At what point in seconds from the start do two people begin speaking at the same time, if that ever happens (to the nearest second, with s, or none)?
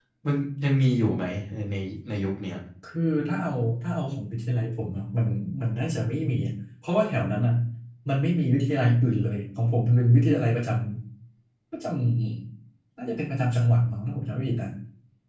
none